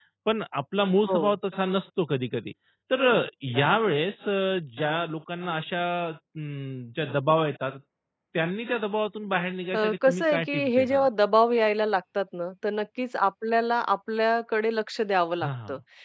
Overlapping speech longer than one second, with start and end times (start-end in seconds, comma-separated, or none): 9.7-11.0